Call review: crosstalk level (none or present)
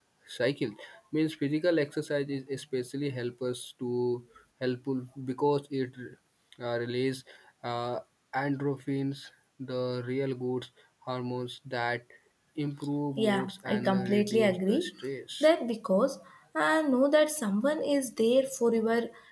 present